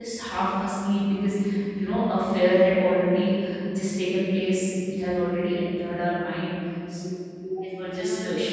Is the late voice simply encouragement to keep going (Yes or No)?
Yes